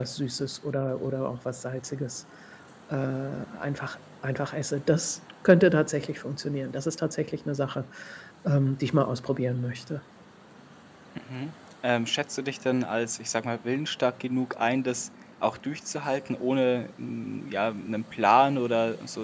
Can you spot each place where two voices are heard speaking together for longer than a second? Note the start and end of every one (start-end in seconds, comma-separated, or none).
none